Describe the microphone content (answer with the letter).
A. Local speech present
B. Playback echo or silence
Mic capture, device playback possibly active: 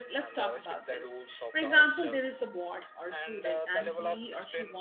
A